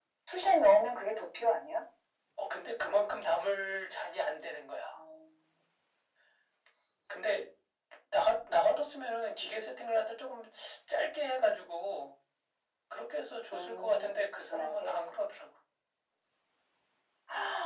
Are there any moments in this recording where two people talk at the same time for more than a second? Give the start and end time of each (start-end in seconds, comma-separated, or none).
13.5-15.0